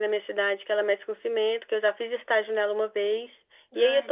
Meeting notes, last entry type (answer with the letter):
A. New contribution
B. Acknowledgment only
B